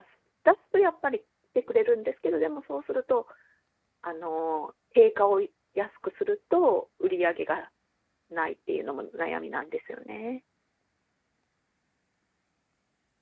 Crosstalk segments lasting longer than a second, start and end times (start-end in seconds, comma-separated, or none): none